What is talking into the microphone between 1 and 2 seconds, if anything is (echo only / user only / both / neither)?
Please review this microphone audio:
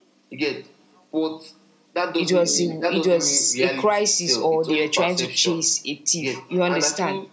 echo only